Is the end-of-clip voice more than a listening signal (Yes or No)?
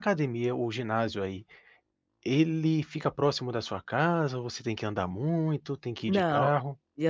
Yes